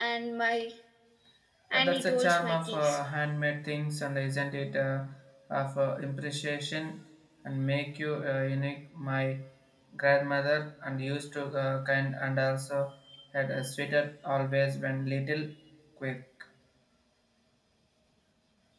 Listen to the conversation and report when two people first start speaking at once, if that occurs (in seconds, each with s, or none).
1.7 s